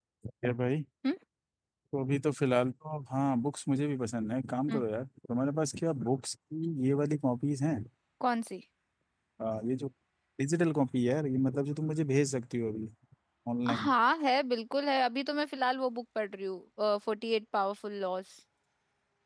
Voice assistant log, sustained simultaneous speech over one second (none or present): none